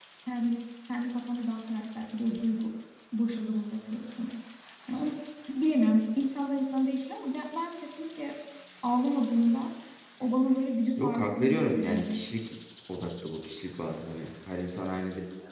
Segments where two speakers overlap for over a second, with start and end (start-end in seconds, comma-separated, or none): 11.0-12.2